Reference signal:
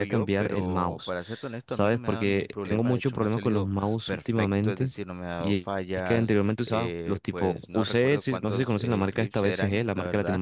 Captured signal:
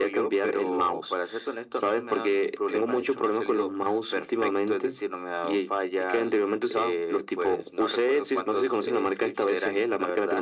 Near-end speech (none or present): none